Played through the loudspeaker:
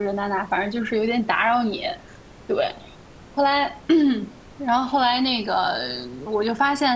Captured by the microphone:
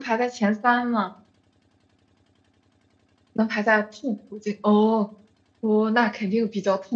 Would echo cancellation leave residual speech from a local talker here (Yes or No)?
Yes